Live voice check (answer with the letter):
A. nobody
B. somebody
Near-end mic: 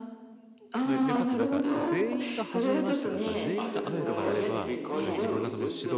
B